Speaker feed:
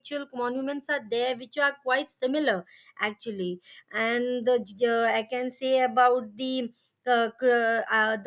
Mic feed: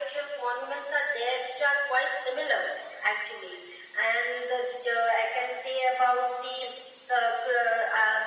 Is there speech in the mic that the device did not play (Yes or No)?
No